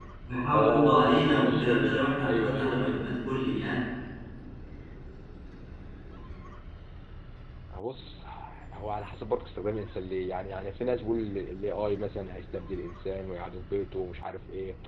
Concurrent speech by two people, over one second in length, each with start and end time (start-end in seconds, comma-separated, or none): 0.5-3.1